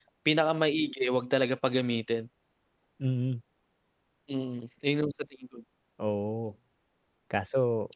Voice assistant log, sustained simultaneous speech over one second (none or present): none